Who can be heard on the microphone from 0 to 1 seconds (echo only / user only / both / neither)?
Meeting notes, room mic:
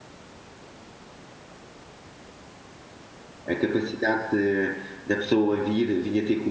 neither